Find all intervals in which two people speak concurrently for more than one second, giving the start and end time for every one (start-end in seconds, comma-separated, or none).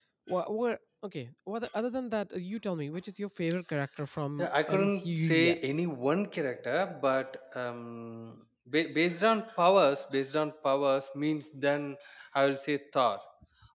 4.4-5.7